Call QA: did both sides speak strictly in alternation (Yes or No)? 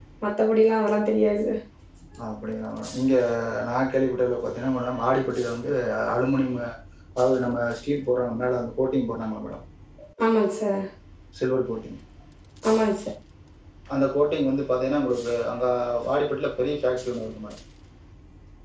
Yes